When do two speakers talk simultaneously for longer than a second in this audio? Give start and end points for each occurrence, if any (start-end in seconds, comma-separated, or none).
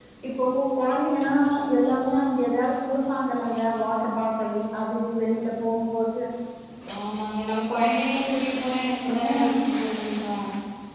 none